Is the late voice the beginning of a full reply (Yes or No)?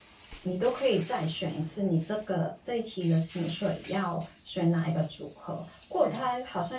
No